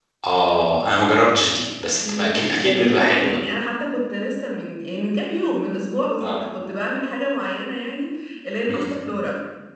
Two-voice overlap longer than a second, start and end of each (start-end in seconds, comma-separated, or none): 2.0-3.4